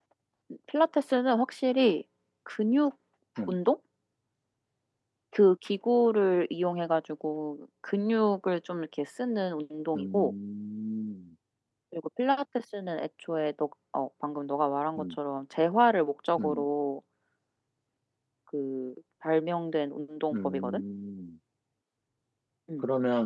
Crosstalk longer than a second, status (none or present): none